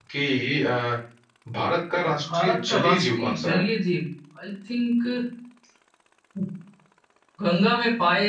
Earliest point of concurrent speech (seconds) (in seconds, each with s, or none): 2.1 s